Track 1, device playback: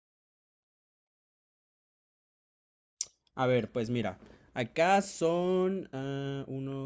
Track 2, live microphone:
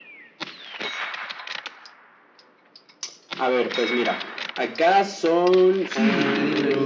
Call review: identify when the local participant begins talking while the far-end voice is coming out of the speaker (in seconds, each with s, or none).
5.8 s